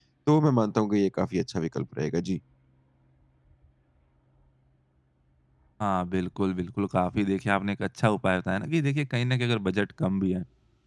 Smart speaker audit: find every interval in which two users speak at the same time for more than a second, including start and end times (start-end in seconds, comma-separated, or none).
none